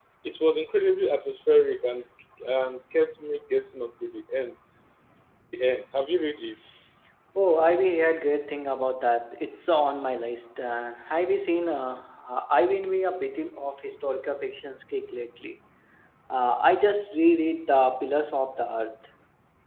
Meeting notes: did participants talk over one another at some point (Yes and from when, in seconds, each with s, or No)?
No